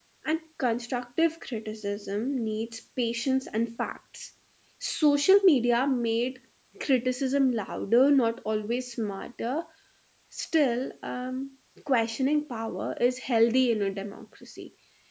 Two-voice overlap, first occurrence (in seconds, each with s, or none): none